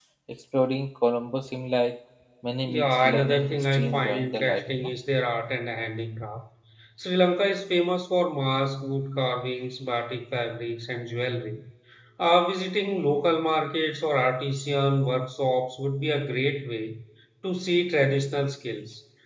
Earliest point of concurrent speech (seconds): 3 s

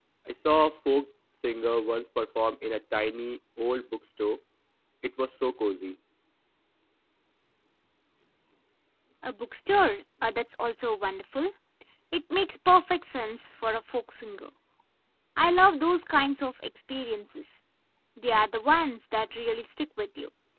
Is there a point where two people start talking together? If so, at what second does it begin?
none

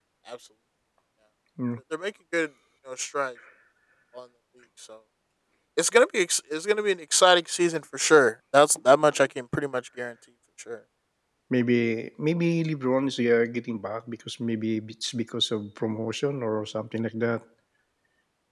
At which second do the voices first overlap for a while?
none

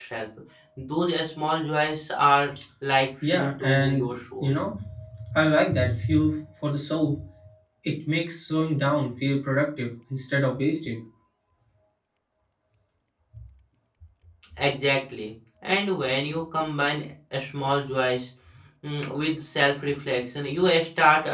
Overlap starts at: 3 s

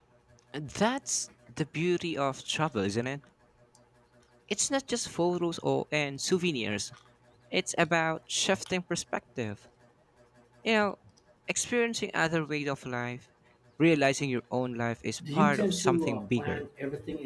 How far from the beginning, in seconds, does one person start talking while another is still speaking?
15 s

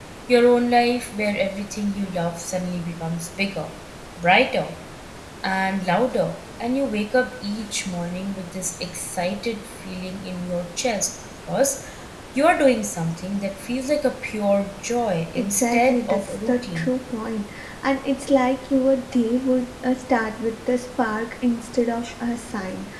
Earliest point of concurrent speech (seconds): 15 s

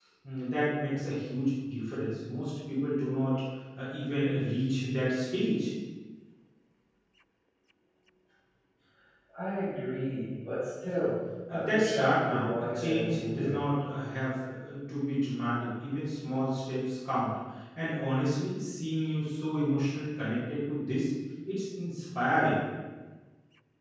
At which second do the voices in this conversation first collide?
11 s

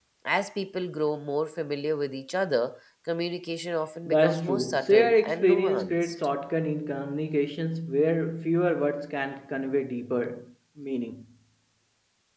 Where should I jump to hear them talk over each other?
4 s

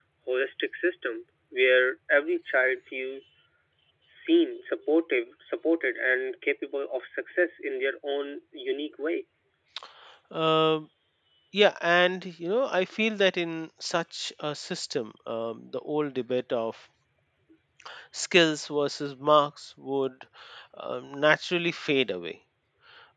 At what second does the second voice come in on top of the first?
none

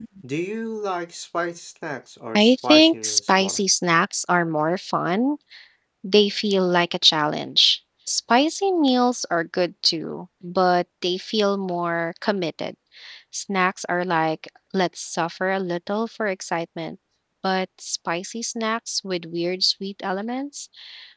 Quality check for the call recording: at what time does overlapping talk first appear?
2 s

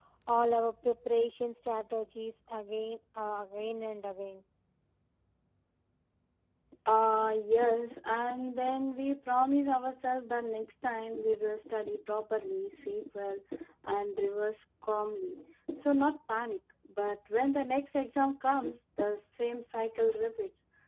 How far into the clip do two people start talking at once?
none

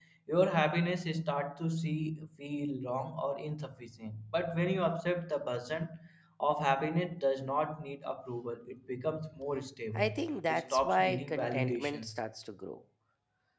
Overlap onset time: 10 s

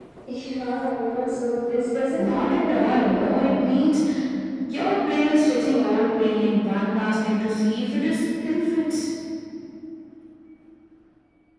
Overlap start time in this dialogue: 2 s

